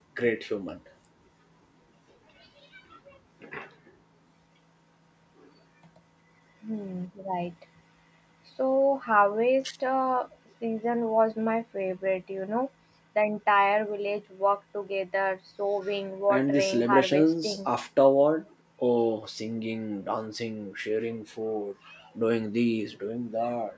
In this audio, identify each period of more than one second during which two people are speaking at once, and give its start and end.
16.3-17.7

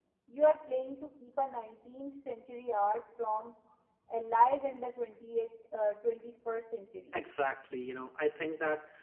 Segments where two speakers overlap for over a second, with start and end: none

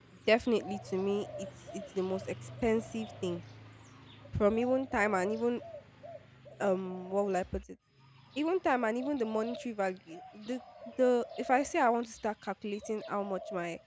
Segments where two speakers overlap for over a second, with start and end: none

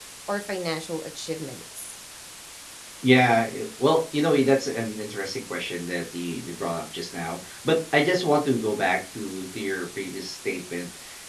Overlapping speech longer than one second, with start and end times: none

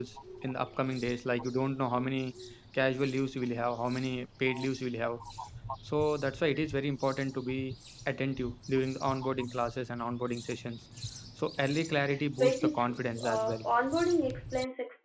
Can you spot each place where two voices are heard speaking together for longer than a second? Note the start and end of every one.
12.3-13.6

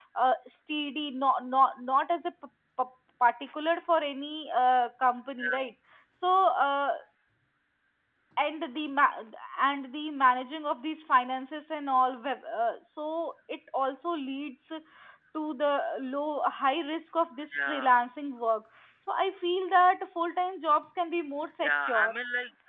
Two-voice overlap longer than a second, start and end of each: none

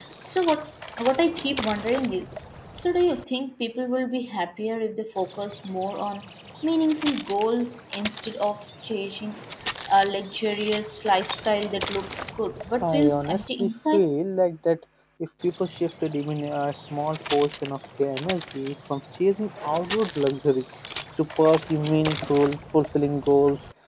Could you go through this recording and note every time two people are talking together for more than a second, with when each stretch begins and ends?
12.8-14.0

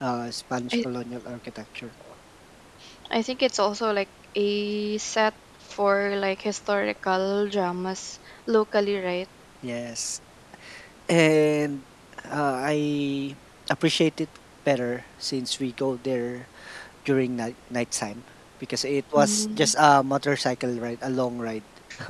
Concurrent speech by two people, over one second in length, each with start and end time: none

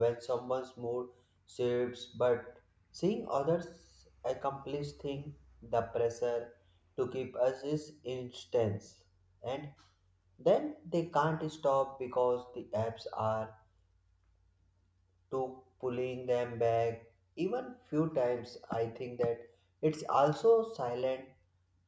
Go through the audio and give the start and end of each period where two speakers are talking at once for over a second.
none

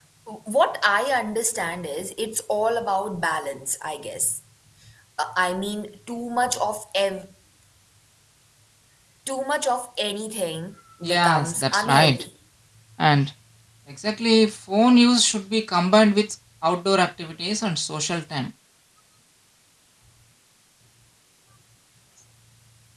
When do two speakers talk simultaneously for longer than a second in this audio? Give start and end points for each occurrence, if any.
11.0-12.2

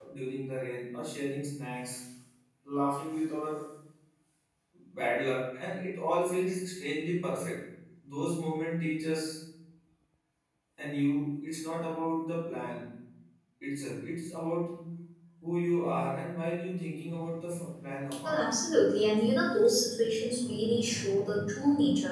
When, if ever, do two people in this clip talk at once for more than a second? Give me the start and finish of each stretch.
none

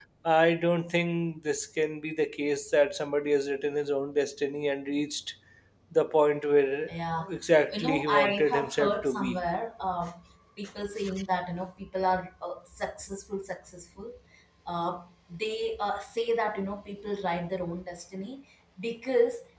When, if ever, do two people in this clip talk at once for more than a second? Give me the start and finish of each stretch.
7.7-9.4

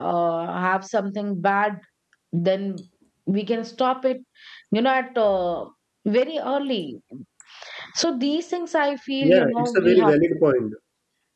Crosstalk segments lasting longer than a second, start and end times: 9.2-10.4

